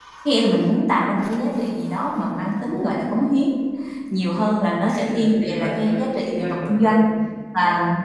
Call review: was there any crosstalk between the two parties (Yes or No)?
Yes